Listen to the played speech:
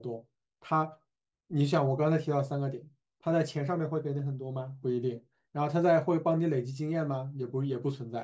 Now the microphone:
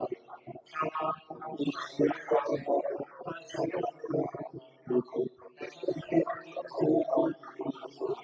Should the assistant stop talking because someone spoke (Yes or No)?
No